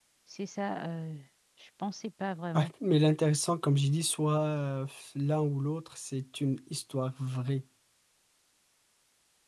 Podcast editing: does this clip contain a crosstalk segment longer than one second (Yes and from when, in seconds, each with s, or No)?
No